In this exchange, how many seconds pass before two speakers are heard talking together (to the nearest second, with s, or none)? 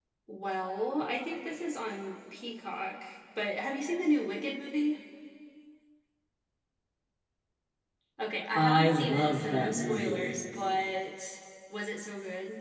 9 s